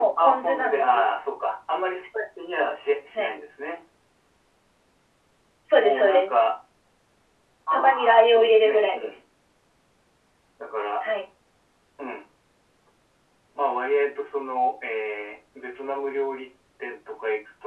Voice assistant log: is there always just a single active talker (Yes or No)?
No